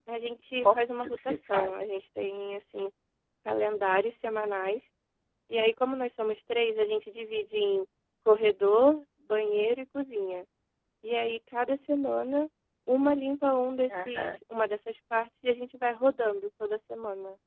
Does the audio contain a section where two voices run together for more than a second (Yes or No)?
Yes